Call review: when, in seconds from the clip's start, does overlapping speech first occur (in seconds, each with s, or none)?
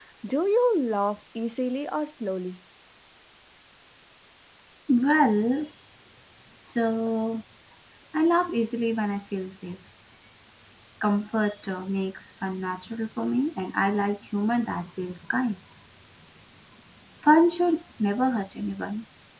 none